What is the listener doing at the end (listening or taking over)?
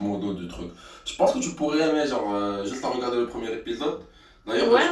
listening